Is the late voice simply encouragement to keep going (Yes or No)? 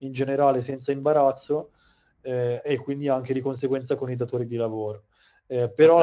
Yes